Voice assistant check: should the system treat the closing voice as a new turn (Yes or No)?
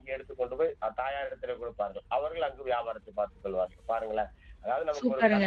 Yes